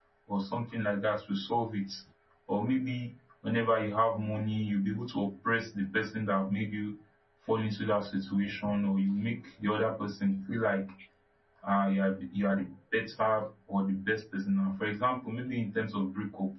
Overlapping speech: No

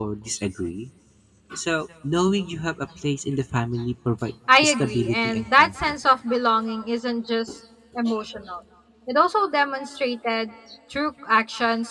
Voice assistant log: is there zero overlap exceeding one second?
No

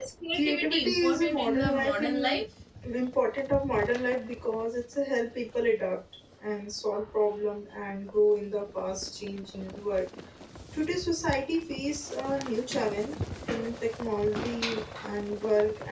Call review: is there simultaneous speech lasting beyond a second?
Yes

